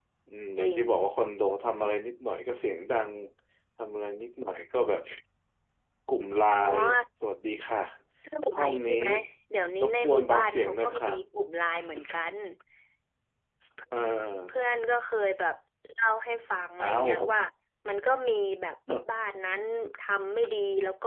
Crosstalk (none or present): present